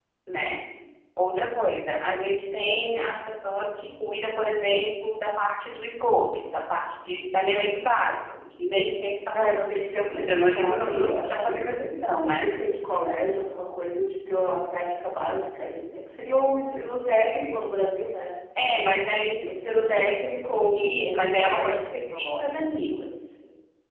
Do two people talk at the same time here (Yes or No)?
Yes